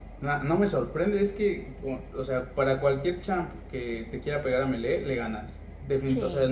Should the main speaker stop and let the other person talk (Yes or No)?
No